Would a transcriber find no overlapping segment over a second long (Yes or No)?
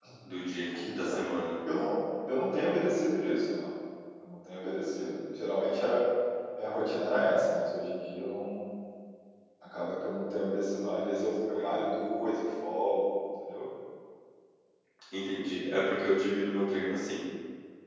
Yes